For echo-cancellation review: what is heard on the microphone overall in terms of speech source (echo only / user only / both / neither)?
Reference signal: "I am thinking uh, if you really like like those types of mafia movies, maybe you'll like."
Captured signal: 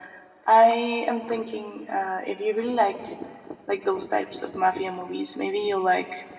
echo only